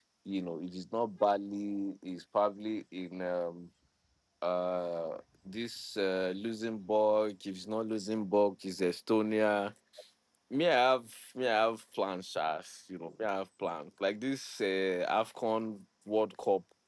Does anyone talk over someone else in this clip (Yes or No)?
No